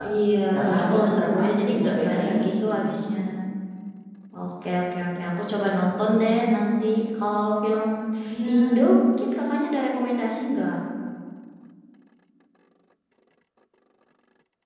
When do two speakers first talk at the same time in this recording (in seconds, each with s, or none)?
0.5 s